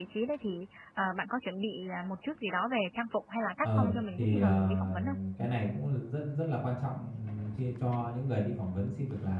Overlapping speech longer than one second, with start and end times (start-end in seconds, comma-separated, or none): 3.6-5.2